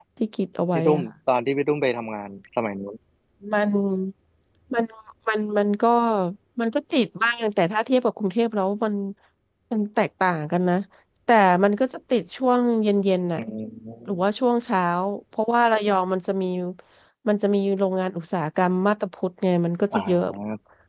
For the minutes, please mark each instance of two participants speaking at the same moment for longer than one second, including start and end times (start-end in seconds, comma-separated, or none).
none